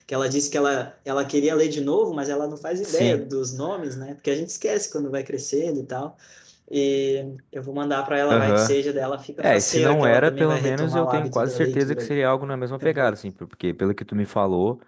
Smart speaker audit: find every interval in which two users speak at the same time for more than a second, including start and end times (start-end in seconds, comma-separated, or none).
9.4-12.2